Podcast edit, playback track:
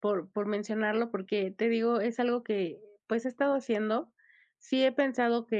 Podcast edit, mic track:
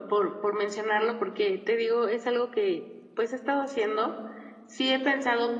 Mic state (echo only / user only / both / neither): echo only